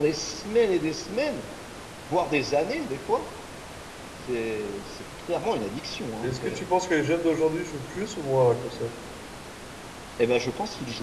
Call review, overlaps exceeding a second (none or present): none